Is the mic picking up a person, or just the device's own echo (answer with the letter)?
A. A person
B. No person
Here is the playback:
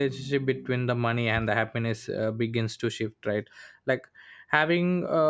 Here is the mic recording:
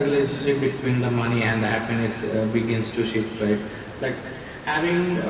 B